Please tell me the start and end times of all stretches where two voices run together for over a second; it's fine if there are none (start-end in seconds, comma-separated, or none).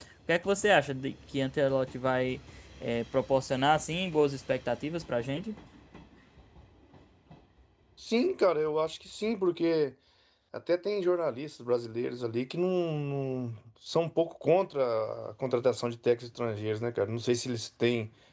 none